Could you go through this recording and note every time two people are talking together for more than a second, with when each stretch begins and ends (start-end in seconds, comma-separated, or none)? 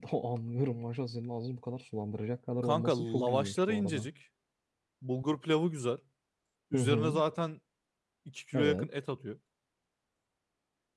2.6-4.1